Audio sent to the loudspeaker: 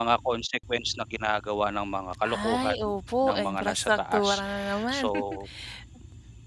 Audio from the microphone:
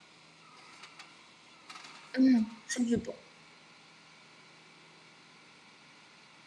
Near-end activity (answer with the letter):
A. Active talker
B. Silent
A